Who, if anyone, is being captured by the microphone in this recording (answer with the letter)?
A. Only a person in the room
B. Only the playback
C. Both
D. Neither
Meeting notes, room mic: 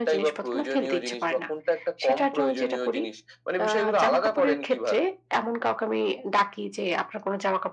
B